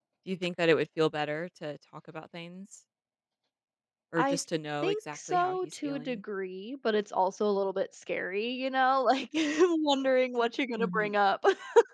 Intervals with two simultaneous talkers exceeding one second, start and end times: 4.8-6.2

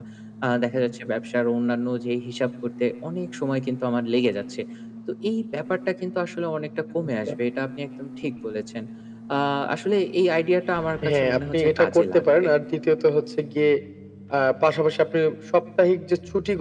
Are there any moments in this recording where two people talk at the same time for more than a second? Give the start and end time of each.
11.1-12.5

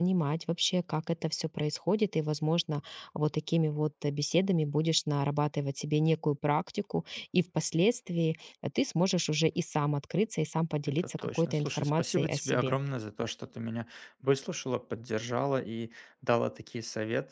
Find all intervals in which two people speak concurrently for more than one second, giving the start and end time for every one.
10.9-12.8

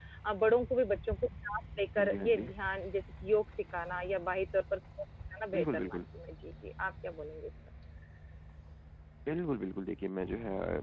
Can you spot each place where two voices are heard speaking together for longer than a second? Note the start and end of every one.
none

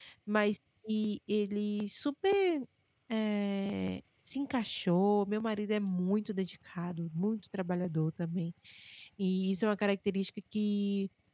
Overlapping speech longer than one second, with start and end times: none

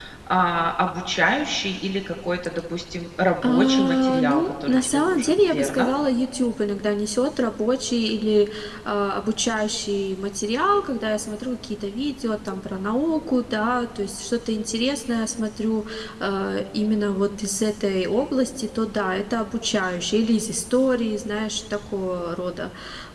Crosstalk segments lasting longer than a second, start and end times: 3.4-5.9

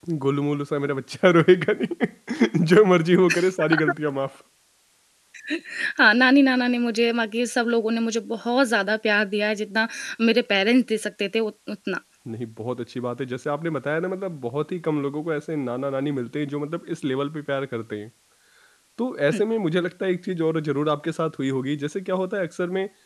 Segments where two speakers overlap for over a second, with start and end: none

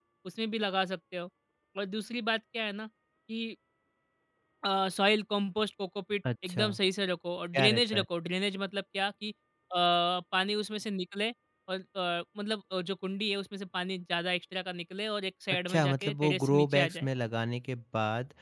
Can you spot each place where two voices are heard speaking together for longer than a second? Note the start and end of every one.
15.7-17.1

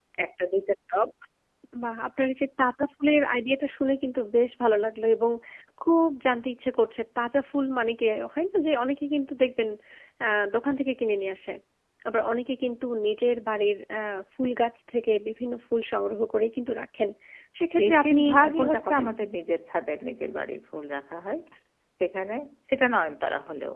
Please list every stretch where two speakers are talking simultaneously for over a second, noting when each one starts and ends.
17.8-19.1

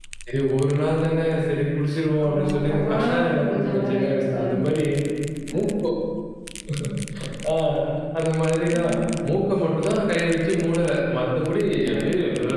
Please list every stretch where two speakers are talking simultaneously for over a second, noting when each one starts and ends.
2.2-4.5

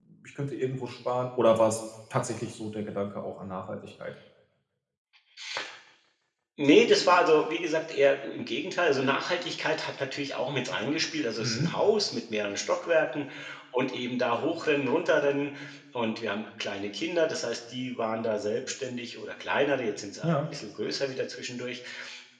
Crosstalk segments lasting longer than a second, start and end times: none

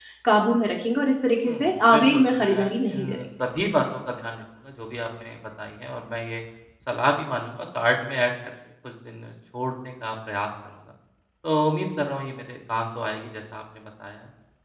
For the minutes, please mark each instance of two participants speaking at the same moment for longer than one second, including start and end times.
1.4-3.2

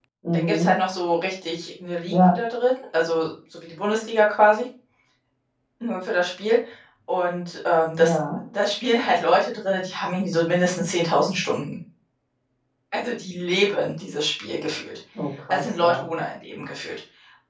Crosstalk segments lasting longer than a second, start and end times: none

